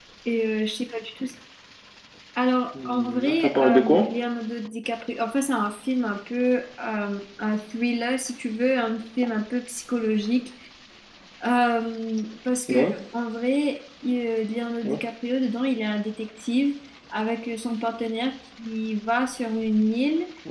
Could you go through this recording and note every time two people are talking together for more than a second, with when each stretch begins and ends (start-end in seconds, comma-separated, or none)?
2.9-4.1